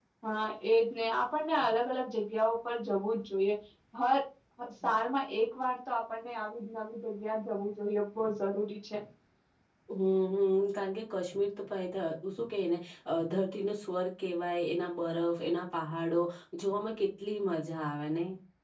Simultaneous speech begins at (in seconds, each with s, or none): none